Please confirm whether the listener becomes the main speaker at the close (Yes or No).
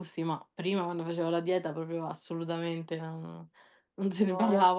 No